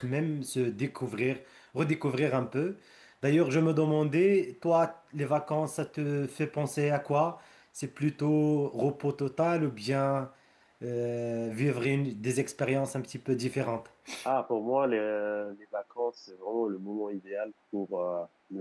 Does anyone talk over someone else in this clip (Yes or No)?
No